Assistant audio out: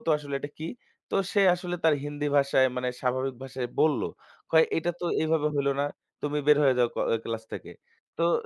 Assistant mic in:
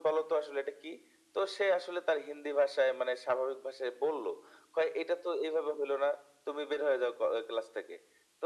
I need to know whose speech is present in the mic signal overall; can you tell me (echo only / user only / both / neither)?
echo only